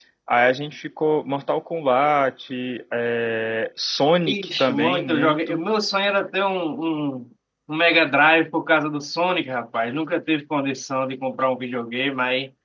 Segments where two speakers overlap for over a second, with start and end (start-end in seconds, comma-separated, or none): 4.3-5.6